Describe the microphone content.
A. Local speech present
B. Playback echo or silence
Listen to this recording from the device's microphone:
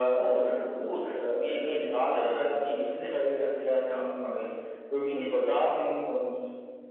B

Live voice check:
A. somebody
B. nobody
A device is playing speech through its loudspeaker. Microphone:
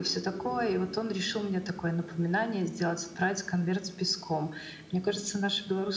B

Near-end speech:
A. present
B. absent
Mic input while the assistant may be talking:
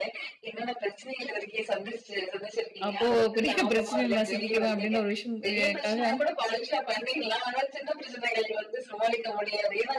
A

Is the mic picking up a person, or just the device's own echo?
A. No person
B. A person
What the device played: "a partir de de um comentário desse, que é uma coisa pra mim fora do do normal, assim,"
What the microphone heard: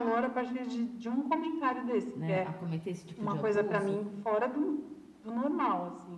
B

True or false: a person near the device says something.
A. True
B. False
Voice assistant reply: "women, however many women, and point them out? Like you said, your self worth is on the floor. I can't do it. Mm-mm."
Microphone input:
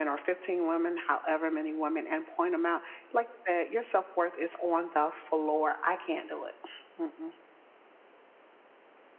B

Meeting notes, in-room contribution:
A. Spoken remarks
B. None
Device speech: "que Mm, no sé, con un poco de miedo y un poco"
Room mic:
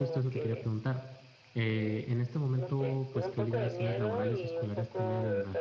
A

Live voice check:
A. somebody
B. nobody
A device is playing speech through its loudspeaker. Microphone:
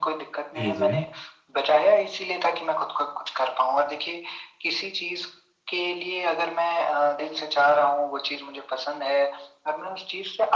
A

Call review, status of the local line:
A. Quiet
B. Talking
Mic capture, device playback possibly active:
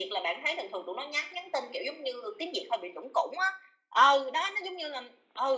A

